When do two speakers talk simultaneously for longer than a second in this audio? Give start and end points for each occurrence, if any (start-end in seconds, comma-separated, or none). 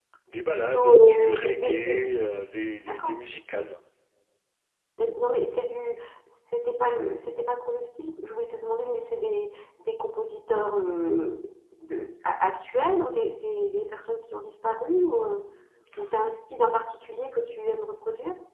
0.5-2.0